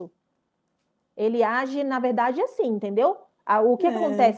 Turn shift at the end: No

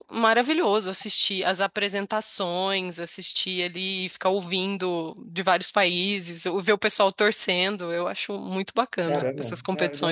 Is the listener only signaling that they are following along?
No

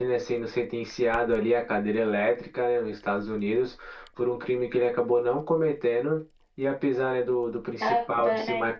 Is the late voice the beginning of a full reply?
No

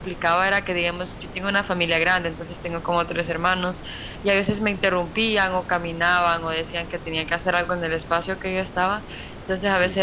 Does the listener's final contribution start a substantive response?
No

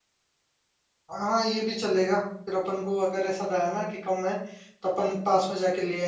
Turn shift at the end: No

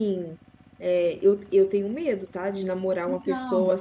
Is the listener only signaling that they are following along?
Yes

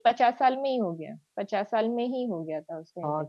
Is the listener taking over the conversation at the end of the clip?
Yes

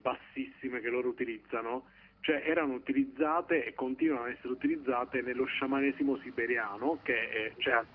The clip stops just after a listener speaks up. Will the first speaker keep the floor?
Yes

